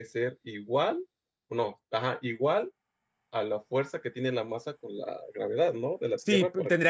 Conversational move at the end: taking over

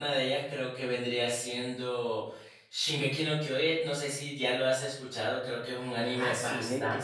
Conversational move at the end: taking over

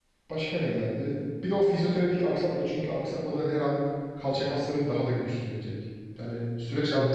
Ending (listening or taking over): taking over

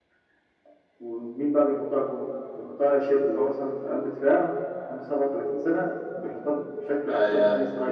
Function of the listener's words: taking over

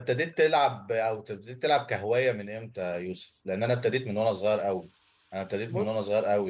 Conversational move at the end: listening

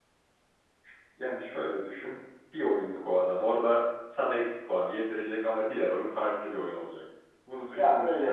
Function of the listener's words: listening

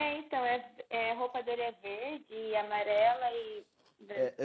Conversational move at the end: taking over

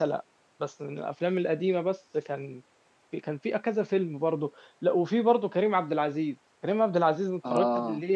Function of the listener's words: listening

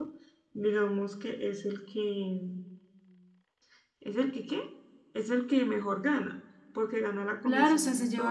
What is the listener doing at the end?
taking over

